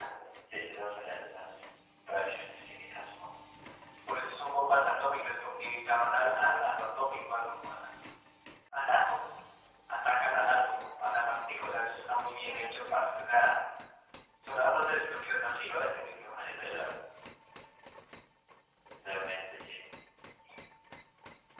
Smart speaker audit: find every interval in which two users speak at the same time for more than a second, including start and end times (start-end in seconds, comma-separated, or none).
none